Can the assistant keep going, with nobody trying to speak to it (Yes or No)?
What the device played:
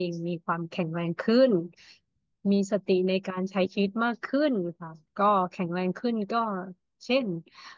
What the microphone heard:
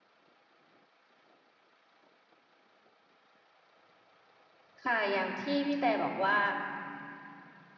No